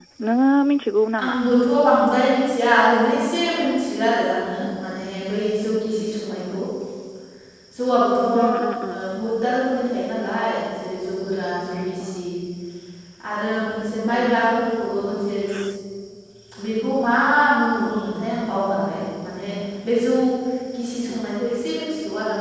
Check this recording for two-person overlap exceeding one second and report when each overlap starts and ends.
none

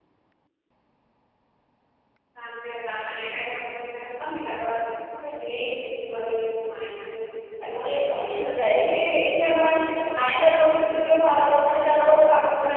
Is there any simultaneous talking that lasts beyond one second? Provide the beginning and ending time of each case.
7.9-9.3

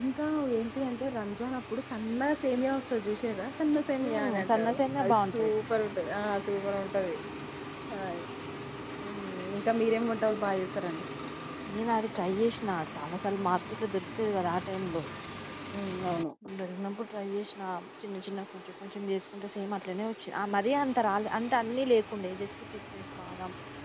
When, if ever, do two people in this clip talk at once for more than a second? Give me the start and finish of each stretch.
4.1-5.5

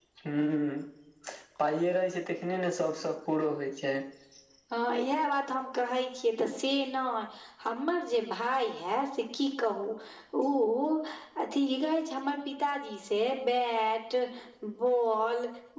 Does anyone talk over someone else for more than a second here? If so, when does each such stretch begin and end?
none

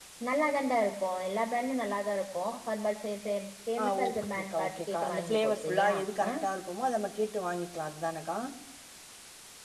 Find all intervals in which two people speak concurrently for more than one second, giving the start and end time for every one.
3.8-5.9

